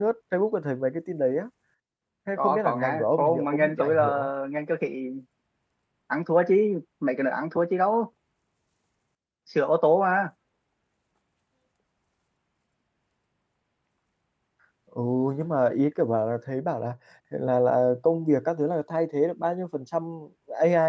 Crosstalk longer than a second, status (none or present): present